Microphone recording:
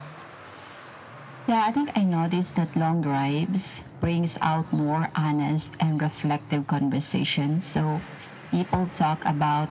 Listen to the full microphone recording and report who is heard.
echo only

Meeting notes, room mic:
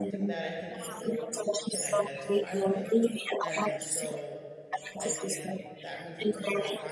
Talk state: both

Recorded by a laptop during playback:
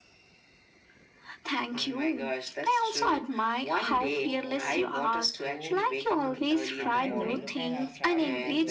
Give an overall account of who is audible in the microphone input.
both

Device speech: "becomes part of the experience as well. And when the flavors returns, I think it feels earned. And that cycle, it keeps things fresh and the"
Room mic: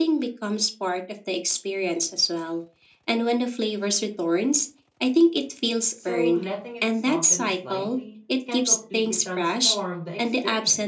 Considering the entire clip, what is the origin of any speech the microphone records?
both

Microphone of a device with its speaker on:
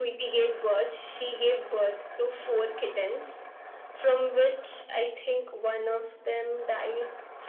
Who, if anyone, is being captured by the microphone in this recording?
echo only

